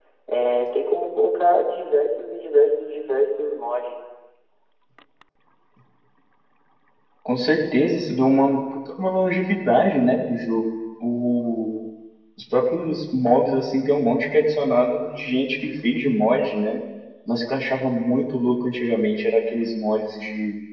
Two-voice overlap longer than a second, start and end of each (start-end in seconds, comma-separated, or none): none